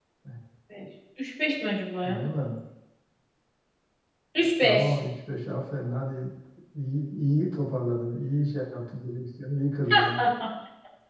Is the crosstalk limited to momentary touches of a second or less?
Yes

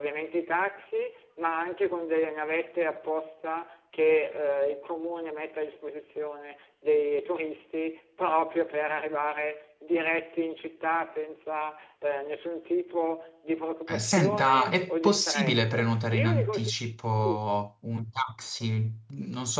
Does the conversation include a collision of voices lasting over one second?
Yes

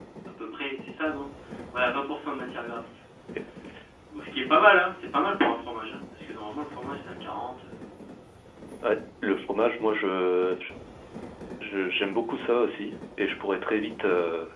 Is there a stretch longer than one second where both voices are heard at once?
No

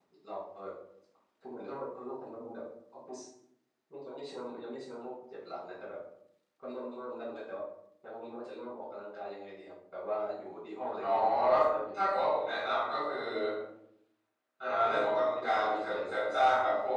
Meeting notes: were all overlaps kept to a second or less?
No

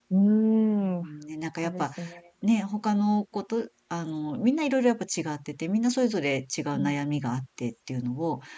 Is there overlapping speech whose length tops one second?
No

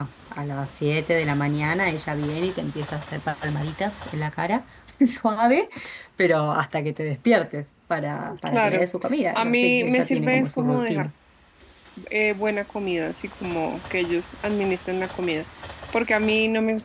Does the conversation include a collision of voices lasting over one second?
Yes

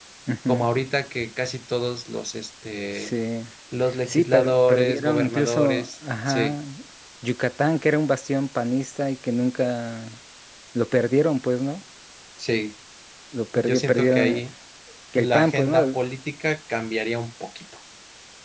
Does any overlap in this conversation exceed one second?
Yes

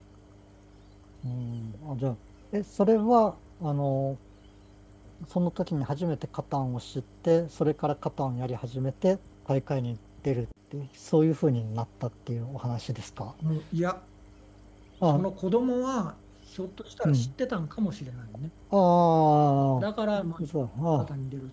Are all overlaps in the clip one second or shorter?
Yes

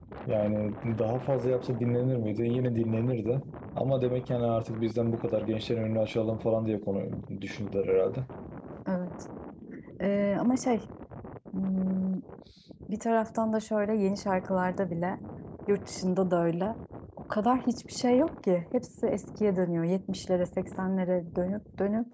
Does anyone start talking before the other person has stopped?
No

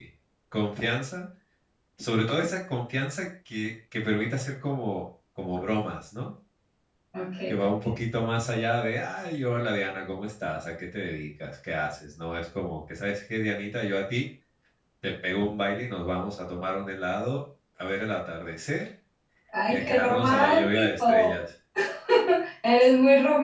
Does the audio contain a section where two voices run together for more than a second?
Yes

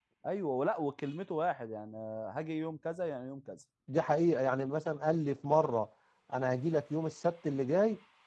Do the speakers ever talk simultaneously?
No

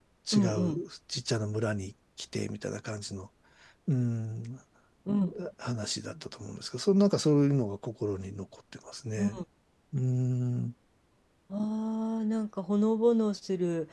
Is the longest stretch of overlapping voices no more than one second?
Yes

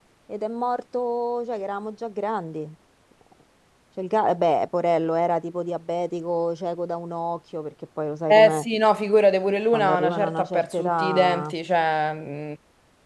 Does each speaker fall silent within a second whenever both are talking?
No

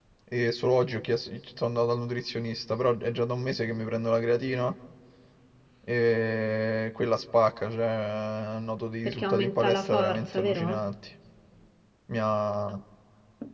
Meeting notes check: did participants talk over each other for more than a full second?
Yes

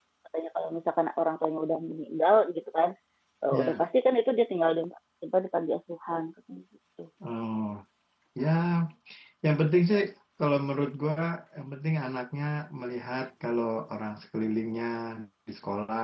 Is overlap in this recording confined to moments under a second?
Yes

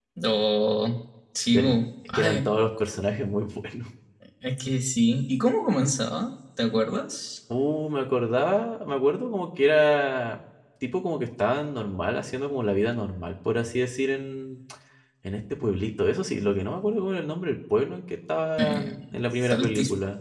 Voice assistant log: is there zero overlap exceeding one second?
No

